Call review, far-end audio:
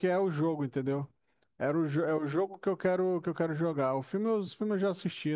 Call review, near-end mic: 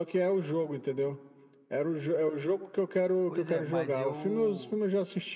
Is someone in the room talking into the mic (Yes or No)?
Yes